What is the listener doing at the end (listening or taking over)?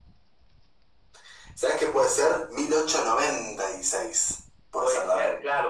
taking over